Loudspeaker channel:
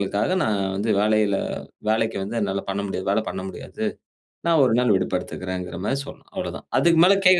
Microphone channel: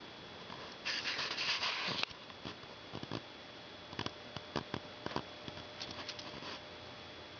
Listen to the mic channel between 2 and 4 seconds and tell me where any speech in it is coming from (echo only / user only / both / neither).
neither